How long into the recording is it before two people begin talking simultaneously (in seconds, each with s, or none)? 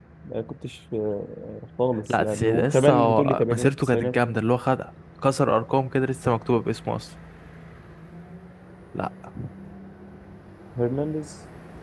2.1 s